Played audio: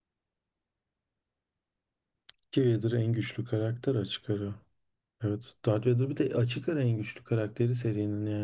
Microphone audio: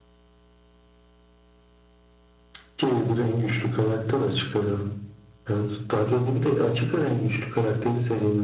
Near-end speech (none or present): none